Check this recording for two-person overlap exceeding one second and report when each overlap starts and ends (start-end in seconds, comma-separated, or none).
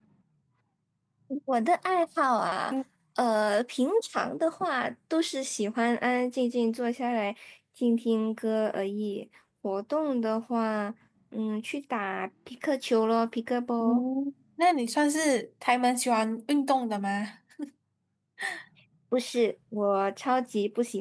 none